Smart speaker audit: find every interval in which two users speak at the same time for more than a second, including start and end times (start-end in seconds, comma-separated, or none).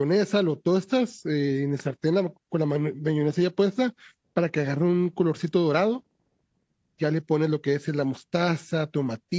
none